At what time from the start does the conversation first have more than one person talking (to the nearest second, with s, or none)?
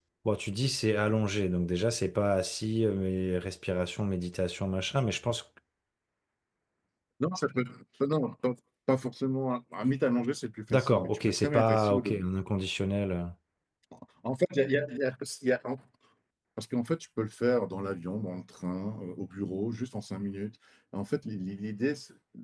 11 s